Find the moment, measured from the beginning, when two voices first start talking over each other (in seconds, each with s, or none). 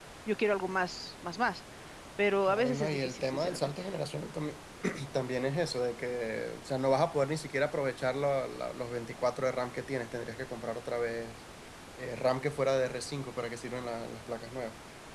2.4 s